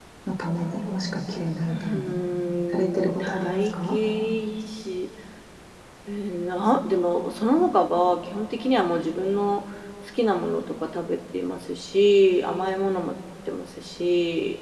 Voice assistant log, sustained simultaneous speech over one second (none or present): present